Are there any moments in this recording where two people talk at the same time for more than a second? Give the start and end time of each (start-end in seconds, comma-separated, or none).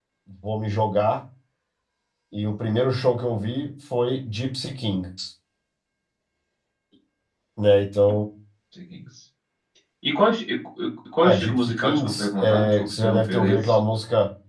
11.2-13.8